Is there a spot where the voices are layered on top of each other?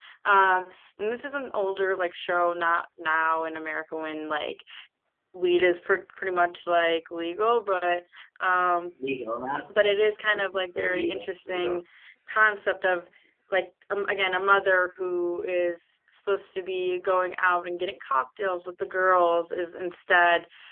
Yes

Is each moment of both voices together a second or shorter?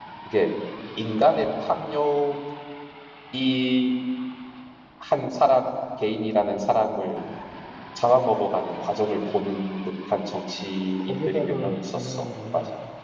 No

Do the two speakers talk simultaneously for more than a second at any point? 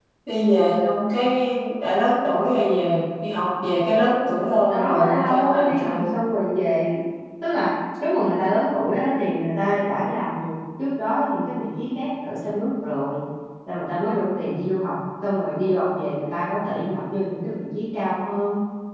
Yes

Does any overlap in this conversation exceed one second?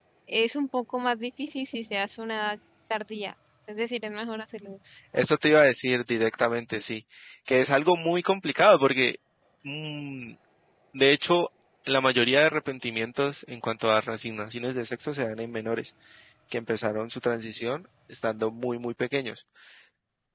No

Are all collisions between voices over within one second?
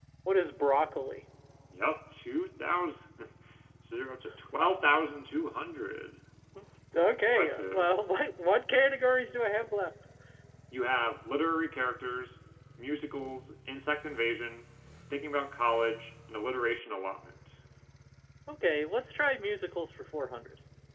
Yes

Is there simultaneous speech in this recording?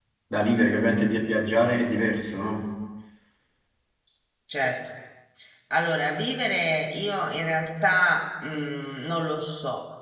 No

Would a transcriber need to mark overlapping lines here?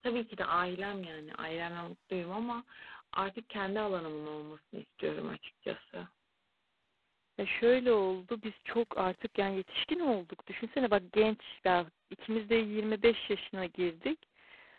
No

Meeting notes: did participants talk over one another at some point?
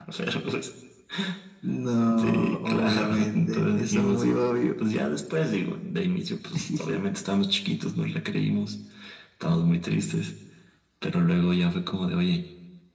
Yes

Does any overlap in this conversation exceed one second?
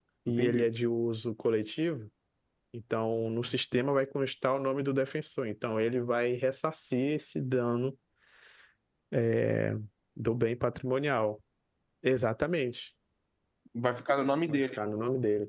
No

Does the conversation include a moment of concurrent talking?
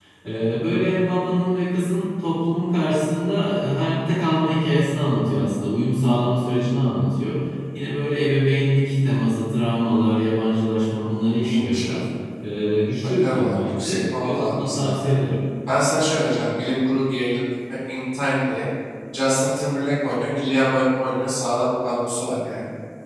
Yes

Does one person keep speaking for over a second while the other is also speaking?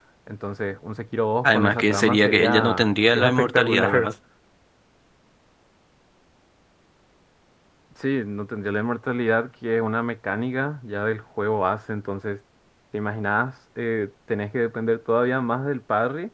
Yes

